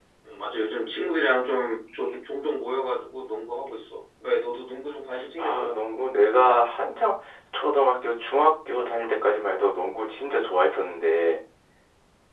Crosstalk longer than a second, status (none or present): none